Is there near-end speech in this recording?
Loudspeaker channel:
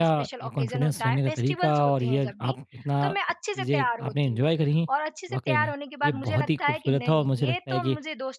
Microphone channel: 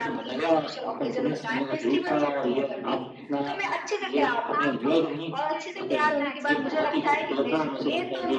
Yes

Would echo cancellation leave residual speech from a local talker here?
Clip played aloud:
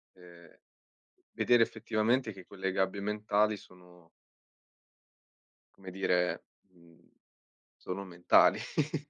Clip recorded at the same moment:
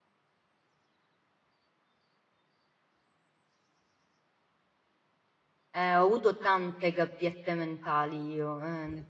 Yes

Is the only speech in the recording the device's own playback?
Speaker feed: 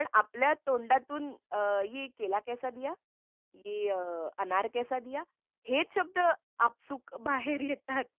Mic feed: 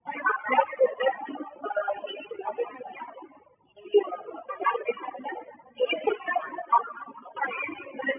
Yes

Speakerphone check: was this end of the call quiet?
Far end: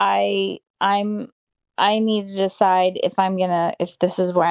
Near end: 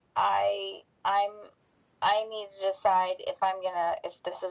Yes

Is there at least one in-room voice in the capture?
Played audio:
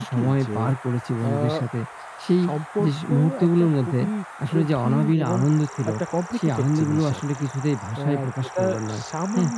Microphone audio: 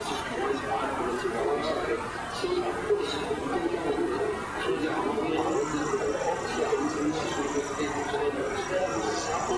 No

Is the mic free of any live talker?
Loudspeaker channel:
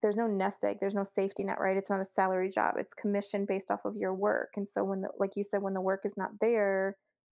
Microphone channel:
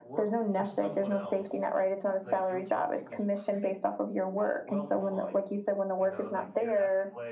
No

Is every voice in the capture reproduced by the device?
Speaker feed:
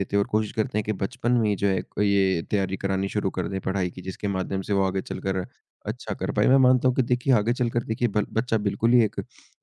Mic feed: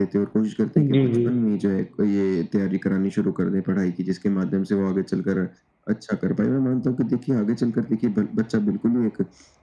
No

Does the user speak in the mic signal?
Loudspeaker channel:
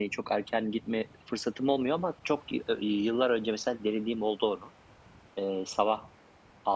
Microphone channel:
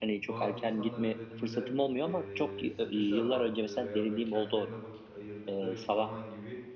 Yes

